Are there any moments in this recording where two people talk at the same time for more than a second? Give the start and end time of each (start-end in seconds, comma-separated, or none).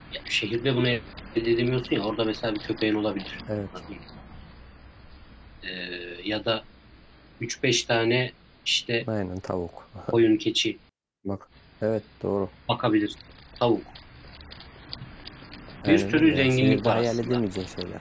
15.9-17.4